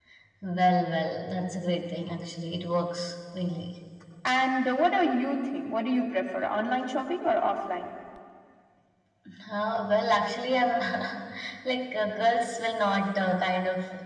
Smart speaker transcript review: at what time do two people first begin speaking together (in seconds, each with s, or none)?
none